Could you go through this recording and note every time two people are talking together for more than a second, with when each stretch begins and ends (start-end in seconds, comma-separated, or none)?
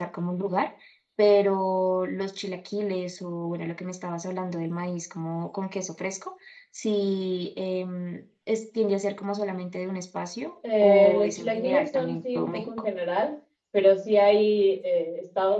10.8-12.9